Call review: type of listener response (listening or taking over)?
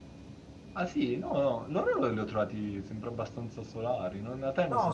taking over